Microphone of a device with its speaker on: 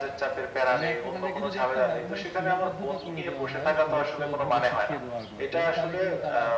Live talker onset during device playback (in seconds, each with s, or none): 0.7 s